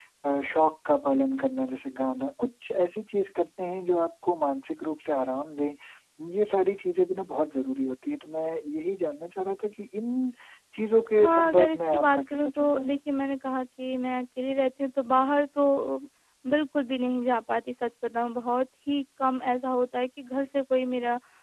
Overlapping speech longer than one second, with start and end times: 11.1-13.0

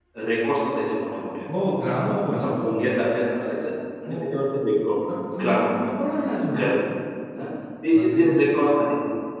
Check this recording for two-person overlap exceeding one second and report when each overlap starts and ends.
none

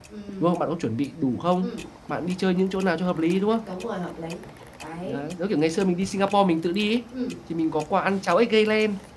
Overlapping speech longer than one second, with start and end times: none

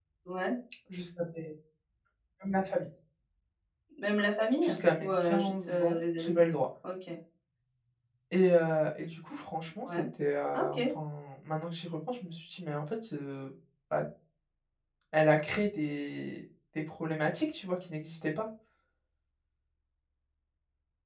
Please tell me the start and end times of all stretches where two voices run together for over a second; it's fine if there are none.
4.6-6.4

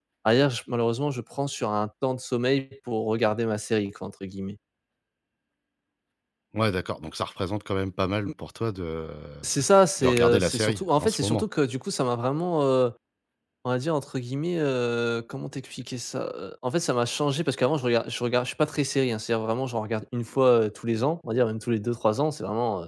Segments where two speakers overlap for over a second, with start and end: 10.0-11.4

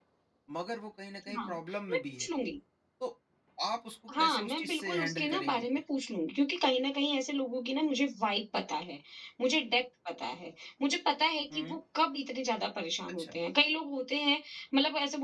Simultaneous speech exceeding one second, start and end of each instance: 4.2-5.7

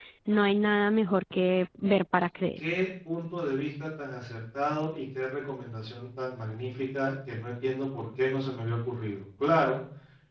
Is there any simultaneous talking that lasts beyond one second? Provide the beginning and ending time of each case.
none

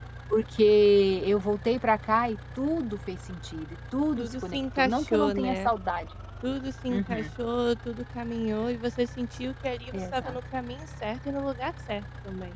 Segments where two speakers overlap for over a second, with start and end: 4.2-5.7

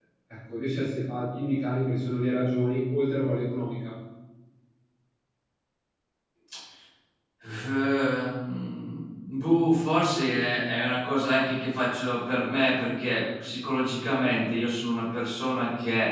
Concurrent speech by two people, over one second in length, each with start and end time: none

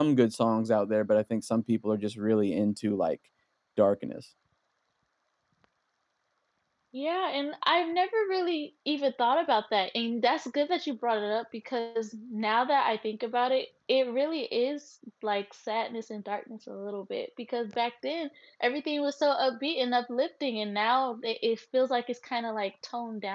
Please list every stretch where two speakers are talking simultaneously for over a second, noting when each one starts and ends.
none

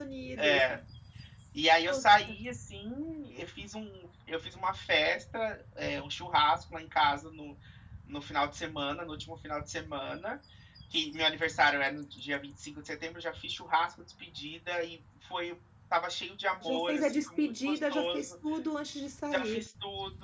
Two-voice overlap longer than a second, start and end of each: 16.6-18.3

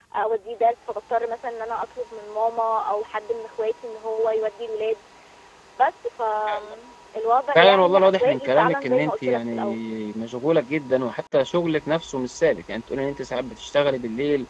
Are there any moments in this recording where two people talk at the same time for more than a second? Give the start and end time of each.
7.5-9.8

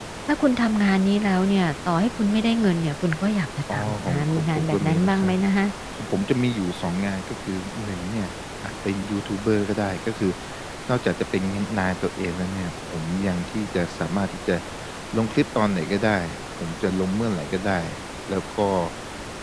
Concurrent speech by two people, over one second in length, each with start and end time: 3.7-5.3

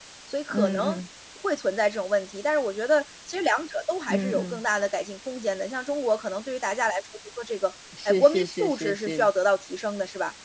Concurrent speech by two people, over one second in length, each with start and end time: 8.0-9.3

